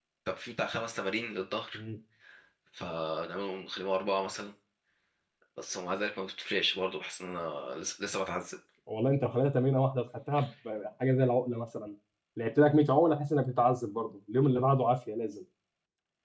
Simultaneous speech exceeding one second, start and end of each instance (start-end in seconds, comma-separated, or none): none